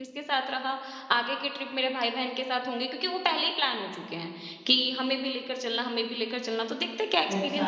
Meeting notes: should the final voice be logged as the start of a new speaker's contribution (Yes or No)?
Yes